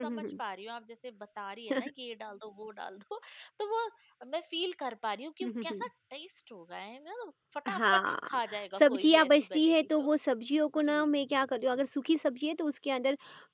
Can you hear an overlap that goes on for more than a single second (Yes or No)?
Yes